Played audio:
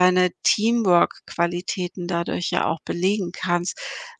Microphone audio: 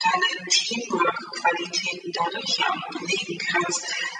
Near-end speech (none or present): none